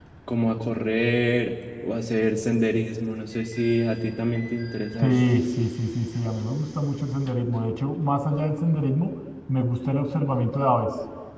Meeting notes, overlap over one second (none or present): none